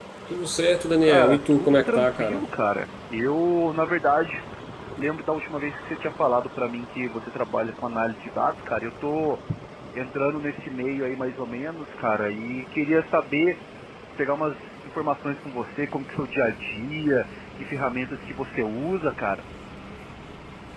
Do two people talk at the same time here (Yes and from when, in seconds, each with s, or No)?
Yes, from 1.0 s